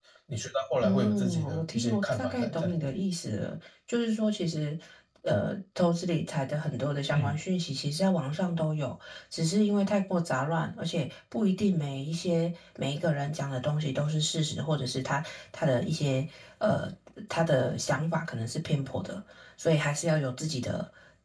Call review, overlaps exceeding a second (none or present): present